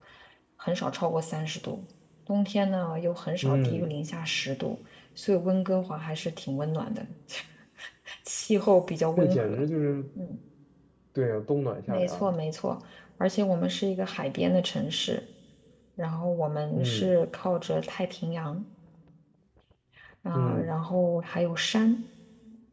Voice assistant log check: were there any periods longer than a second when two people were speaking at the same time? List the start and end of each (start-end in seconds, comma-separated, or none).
none